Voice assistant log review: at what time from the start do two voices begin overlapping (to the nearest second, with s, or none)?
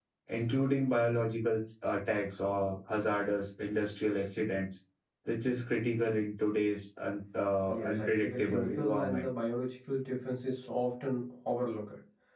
8 s